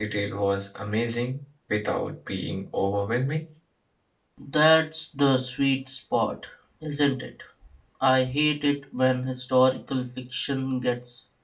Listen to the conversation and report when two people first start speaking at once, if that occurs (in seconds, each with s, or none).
none